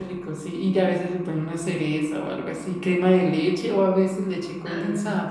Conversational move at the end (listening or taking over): taking over